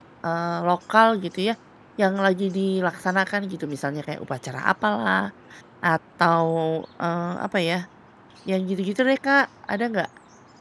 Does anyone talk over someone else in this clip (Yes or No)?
No